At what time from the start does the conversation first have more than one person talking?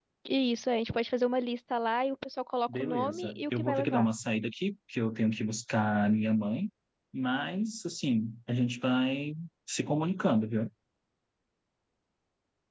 2.7 s

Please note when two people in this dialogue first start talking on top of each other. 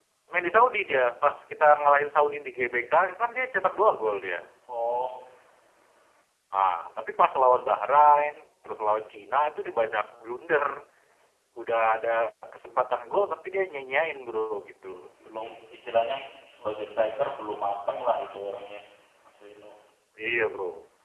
none

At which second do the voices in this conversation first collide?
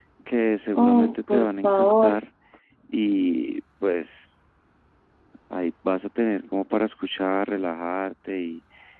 0.8 s

